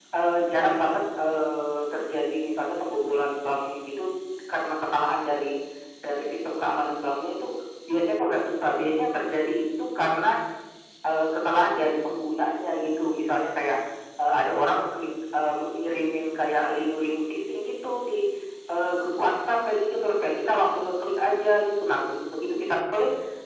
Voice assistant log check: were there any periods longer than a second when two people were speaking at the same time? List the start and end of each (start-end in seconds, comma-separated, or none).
none